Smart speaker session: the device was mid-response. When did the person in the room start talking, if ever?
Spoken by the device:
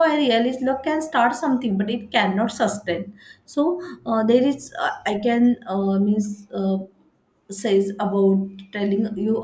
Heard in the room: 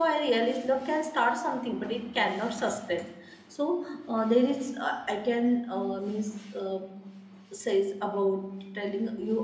none

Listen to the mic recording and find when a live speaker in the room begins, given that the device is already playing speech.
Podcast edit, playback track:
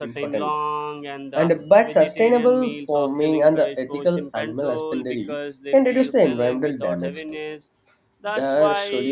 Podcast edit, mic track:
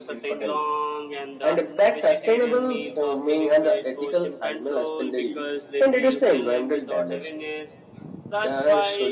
none

